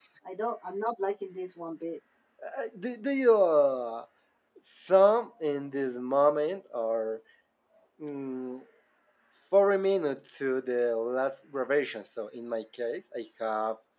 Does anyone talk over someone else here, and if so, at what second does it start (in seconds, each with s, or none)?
none